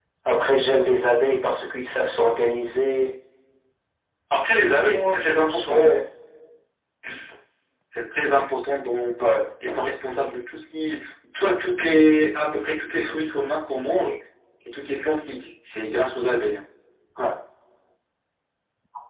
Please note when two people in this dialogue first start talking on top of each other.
4 s

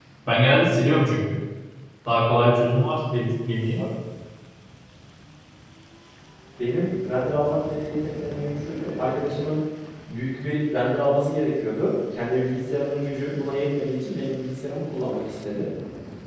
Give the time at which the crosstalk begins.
none

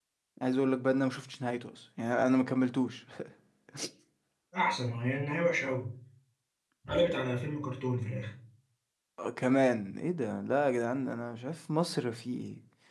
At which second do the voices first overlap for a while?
none

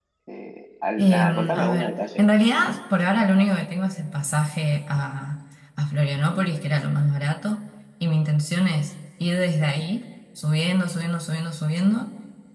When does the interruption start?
1 s

